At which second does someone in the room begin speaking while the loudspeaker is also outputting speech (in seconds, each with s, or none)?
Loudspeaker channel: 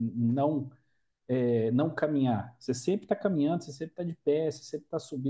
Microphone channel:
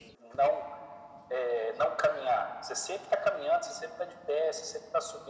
none